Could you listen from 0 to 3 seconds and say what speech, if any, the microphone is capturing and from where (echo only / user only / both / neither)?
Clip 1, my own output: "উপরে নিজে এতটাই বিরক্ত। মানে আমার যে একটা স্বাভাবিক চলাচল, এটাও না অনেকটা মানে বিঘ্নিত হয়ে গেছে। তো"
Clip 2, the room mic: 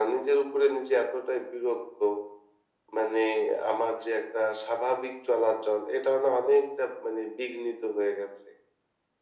echo only